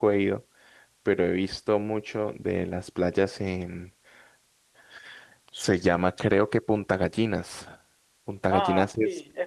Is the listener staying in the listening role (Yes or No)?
No